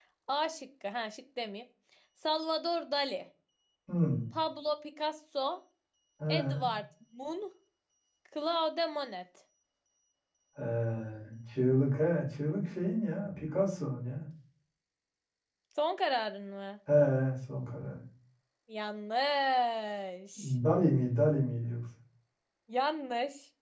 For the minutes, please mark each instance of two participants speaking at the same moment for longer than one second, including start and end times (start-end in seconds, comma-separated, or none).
none